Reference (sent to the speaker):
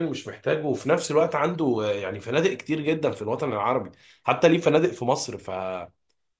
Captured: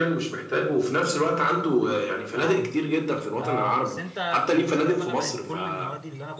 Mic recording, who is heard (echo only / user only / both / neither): both